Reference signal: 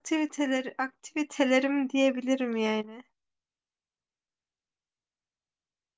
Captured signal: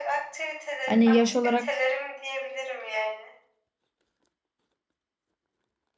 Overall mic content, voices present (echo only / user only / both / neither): both